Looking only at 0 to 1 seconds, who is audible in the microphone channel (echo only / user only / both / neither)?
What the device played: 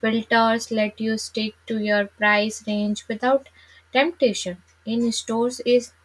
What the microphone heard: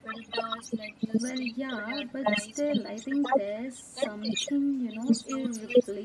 echo only